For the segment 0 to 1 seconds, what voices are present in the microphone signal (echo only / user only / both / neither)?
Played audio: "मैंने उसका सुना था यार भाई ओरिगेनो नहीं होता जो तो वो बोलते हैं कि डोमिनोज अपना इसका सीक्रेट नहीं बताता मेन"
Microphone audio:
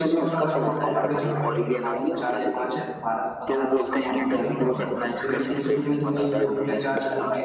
both